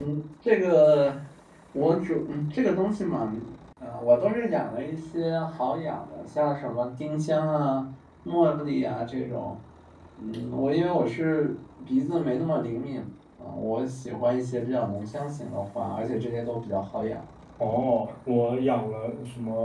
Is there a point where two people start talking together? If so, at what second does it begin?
none

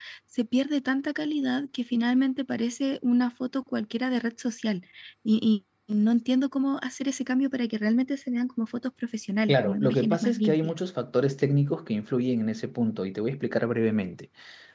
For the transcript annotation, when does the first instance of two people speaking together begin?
9.5 s

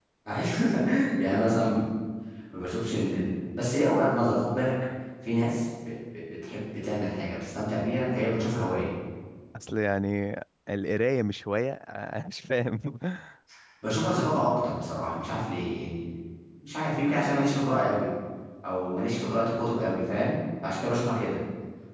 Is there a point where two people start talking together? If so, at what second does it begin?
none

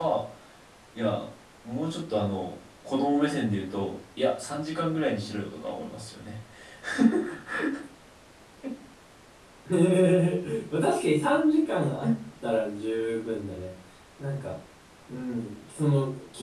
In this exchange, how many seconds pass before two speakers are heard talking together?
none

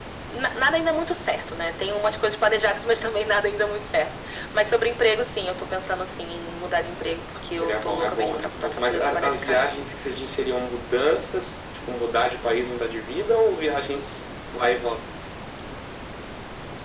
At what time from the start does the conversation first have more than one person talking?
7.5 s

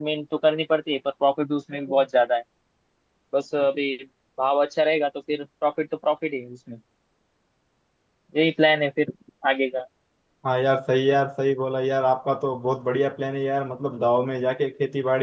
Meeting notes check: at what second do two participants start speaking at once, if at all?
none

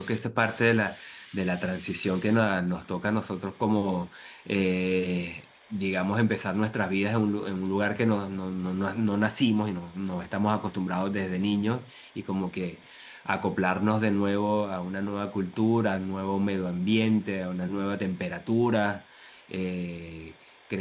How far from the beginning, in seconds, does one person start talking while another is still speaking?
none

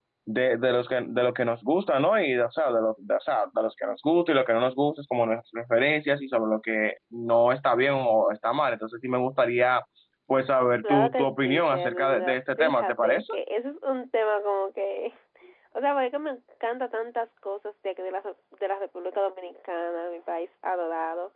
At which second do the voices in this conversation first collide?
10.8 s

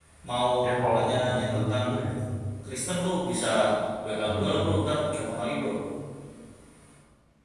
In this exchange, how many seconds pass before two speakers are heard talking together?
0.6 s

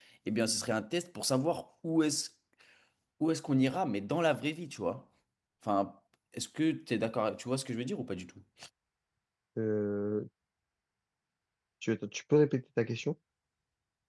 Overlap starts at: none

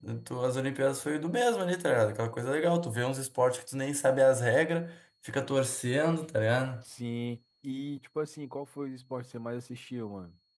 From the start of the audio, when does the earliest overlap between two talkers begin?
none

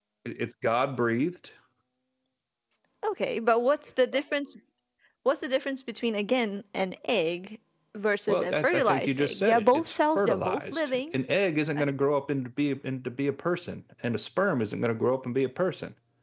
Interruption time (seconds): 8.3 s

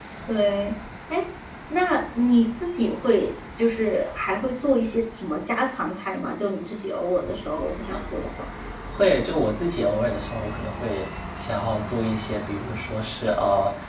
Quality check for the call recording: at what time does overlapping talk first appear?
none

